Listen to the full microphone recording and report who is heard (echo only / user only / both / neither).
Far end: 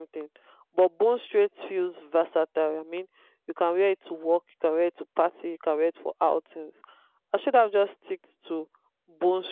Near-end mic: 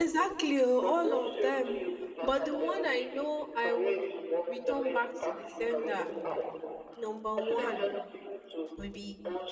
both